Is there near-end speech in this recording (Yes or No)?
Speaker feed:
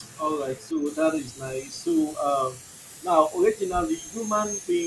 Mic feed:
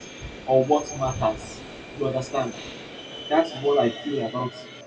Yes